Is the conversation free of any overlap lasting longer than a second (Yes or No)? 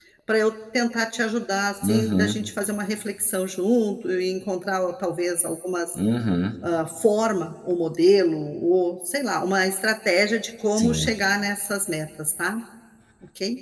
Yes